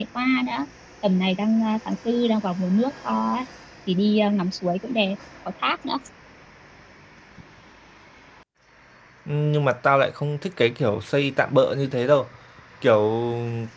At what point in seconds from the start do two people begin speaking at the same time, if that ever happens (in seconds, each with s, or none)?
none